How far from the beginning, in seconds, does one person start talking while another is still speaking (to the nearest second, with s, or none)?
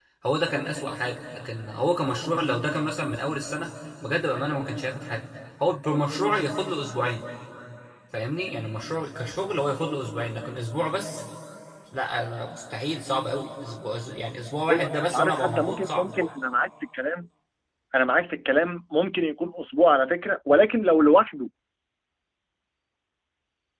15 s